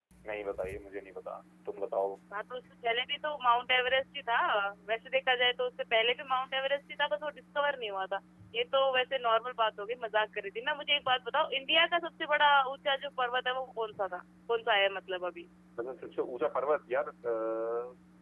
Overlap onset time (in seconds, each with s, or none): none